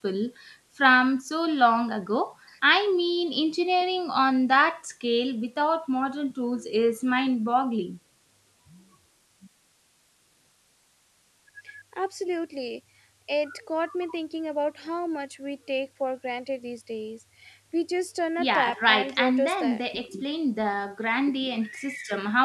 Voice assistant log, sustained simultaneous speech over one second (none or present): present